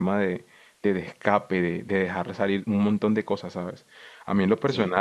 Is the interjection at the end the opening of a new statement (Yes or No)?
No